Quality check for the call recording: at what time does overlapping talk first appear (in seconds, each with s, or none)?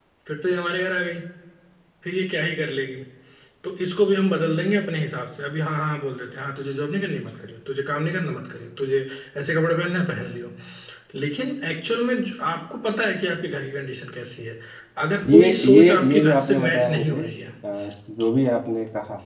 15.2 s